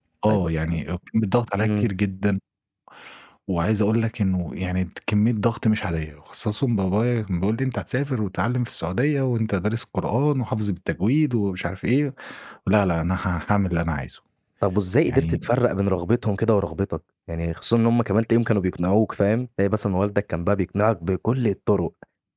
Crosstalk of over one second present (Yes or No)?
No